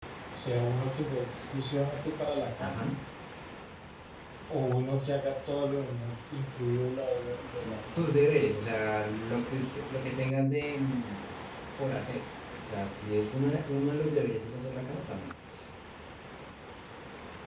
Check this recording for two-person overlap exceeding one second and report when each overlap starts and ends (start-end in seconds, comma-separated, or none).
none